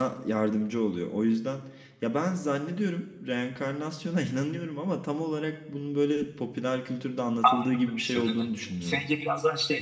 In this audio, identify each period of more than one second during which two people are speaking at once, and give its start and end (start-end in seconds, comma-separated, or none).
7.4-9.0